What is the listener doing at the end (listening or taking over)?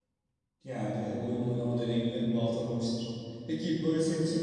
listening